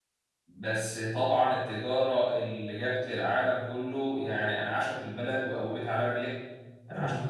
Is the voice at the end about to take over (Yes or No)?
No